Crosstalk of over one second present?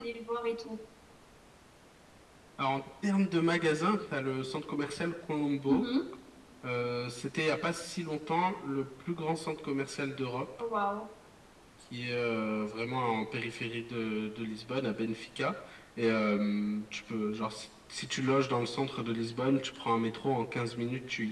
No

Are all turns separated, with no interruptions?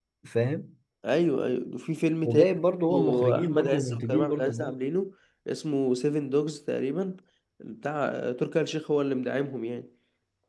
No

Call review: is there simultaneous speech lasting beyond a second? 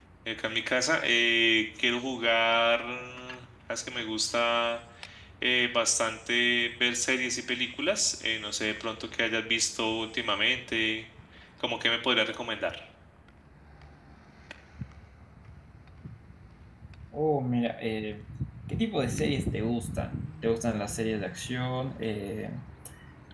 No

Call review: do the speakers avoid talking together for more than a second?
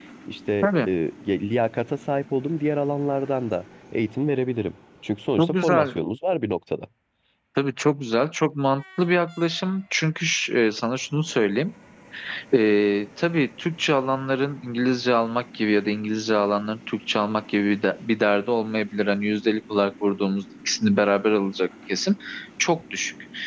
Yes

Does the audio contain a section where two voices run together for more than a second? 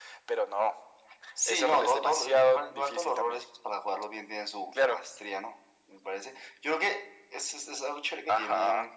Yes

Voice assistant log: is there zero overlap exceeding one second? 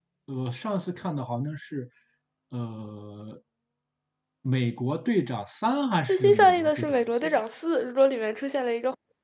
No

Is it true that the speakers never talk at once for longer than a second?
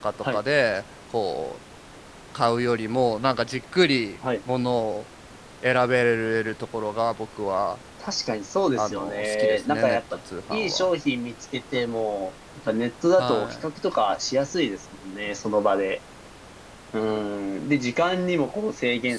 No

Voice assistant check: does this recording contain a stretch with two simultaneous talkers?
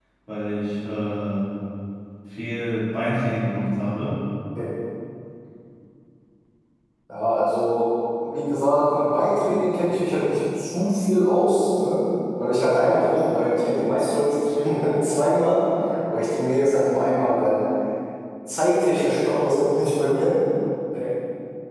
No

